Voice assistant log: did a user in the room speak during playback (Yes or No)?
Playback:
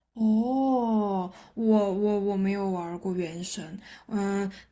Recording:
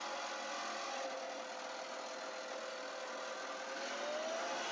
No